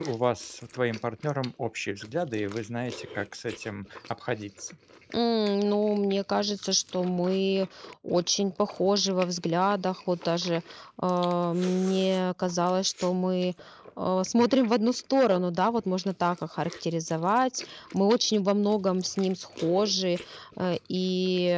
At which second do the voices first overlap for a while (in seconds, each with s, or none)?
none